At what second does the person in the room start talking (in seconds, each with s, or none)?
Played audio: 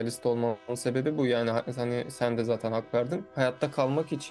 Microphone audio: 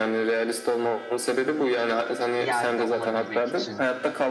2.4 s